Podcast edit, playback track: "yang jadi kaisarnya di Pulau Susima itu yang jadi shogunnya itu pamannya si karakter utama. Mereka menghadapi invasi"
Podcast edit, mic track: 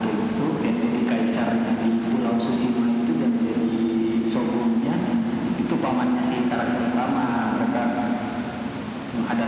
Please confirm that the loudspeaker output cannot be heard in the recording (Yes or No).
No